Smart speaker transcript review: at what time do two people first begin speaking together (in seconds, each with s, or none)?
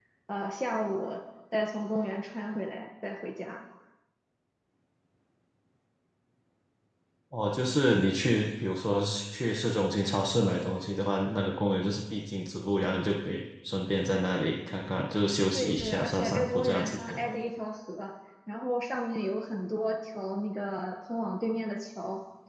15.5 s